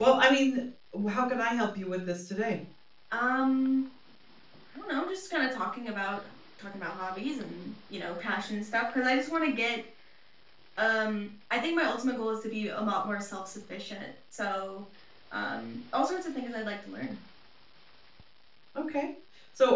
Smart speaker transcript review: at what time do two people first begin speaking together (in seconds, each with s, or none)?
none